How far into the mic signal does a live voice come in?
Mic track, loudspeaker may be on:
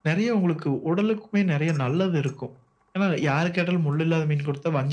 none

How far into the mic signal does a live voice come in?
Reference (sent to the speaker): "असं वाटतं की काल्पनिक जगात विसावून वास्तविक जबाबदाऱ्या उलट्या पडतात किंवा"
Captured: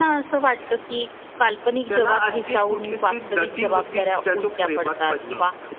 1.9 s

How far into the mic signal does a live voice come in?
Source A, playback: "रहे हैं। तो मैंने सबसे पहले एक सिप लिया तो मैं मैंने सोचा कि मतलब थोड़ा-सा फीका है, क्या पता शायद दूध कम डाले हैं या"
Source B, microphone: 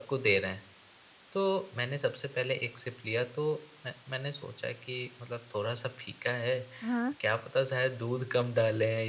6.8 s

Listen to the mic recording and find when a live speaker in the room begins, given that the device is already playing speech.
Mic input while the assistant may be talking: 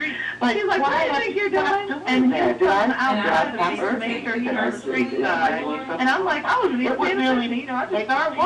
3.0 s

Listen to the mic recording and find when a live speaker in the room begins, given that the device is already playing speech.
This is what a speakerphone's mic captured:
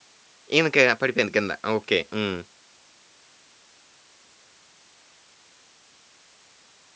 0.6 s

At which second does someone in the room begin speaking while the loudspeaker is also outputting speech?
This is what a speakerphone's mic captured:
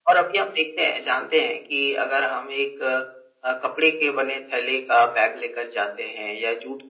none

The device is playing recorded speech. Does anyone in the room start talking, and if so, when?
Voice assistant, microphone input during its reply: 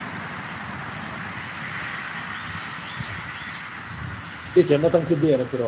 4.5 s

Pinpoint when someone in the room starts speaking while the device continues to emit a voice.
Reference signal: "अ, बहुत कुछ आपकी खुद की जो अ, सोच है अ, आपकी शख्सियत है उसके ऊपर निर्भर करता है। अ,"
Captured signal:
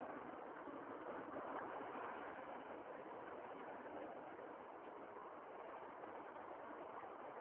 none

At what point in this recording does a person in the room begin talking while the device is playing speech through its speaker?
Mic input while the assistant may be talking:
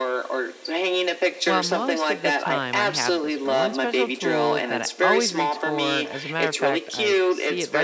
1.4 s

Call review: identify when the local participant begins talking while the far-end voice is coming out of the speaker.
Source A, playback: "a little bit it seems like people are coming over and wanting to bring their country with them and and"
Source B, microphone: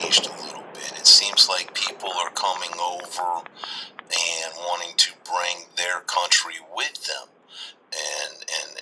none

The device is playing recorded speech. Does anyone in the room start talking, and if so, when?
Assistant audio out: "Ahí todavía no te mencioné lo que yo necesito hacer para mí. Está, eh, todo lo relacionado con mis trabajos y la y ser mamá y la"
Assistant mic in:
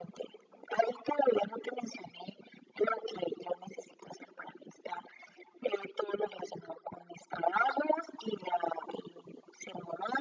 none

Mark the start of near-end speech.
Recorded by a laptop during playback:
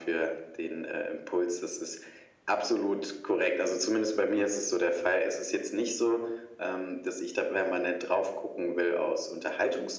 none

